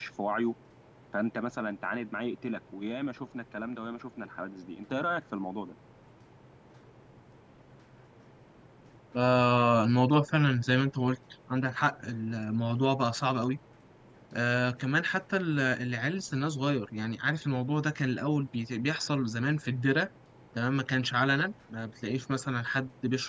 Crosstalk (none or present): none